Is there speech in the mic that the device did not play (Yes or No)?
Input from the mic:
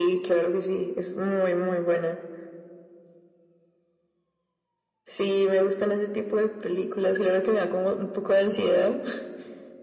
No